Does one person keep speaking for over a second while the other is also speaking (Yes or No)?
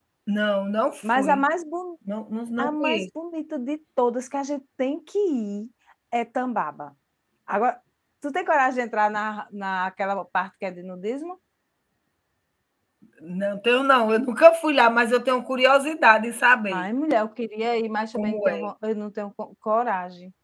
No